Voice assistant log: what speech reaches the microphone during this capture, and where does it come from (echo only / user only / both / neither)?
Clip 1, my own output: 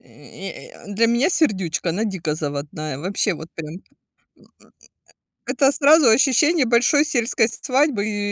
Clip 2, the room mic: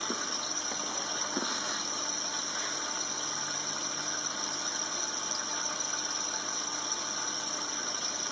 neither